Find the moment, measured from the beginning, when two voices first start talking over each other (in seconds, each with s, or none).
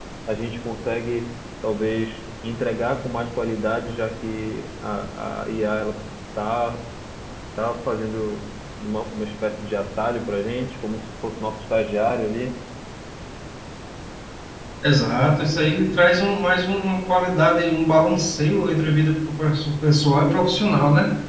none